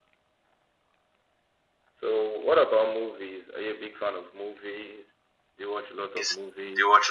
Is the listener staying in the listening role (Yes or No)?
No